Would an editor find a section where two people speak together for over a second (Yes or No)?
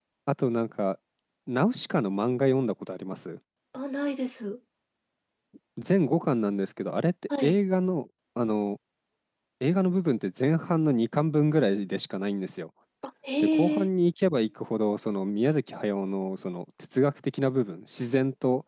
No